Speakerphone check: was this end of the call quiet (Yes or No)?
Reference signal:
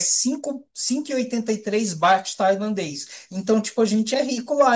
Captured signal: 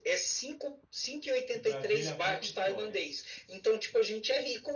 No